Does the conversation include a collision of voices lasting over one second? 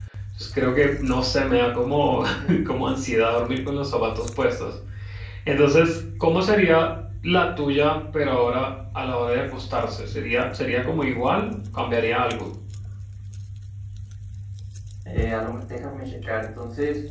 No

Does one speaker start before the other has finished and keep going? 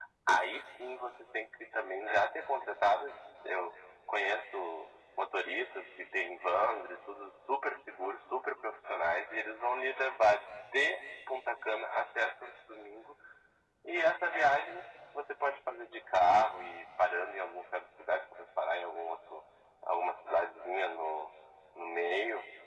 No

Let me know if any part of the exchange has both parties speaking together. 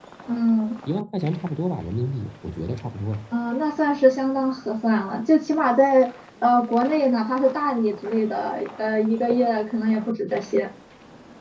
No

